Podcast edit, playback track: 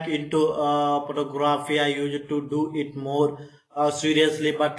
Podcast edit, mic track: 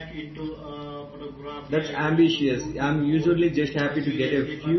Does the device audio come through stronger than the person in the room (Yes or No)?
No